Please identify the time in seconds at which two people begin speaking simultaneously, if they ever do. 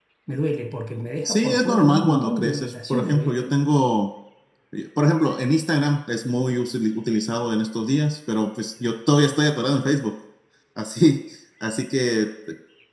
1.2 s

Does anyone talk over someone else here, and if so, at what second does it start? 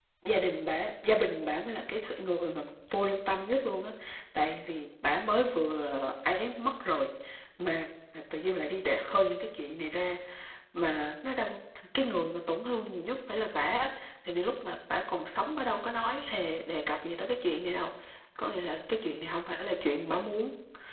none

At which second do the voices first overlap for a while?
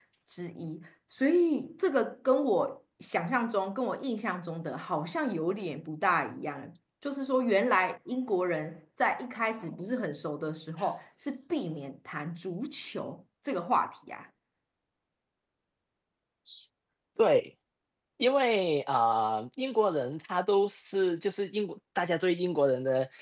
none

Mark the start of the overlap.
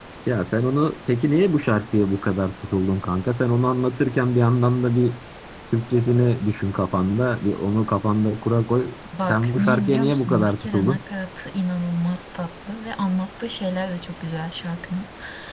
9.1 s

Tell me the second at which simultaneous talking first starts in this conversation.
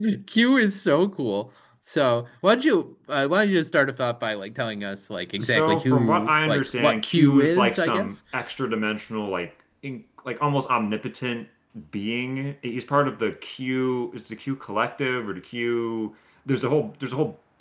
5.4 s

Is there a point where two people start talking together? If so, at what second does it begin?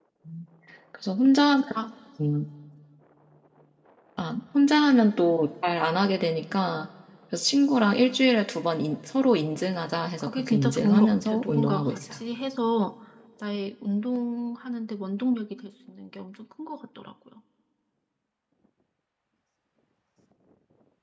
10.2 s

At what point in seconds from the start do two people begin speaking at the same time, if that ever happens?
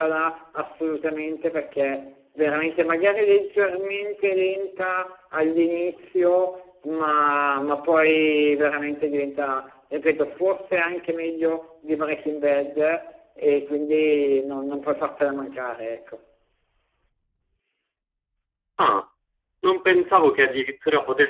none

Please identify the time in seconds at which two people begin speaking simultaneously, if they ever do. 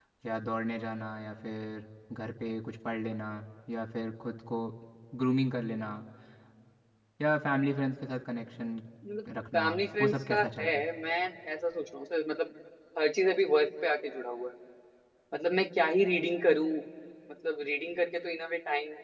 9.5 s

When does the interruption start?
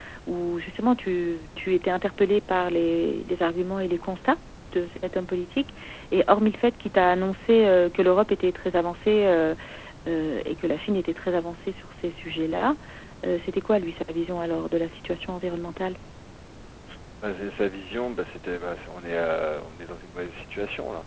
none

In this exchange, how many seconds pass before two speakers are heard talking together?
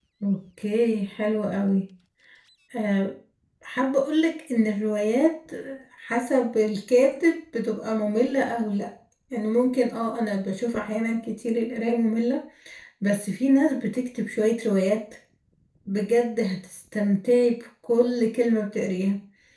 none

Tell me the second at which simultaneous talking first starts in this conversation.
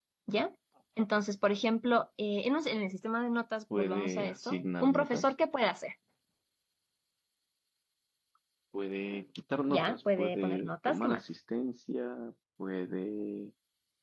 3.7 s

